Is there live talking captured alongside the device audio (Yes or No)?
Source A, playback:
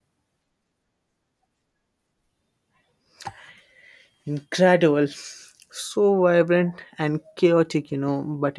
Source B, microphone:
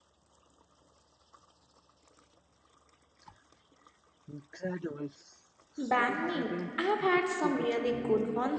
Yes